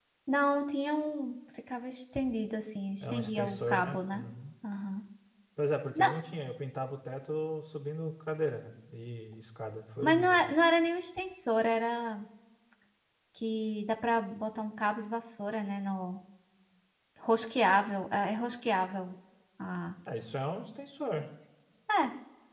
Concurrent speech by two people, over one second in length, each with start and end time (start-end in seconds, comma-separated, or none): 3.0-4.2